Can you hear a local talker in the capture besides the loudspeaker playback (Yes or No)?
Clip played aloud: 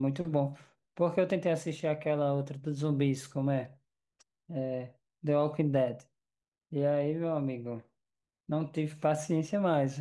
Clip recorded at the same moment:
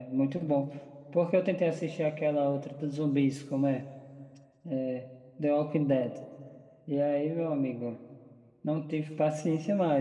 No